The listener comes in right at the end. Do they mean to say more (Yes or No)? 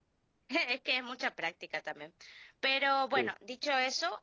No